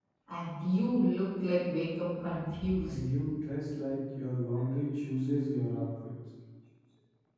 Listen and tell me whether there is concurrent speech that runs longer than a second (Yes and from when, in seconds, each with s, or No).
No